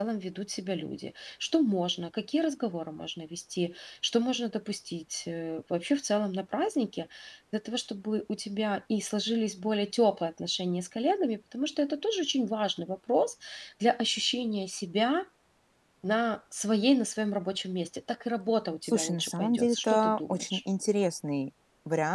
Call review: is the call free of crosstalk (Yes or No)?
No